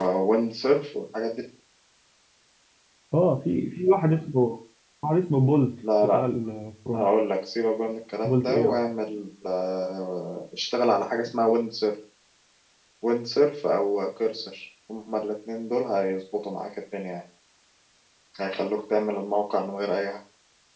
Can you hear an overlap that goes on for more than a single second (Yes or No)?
No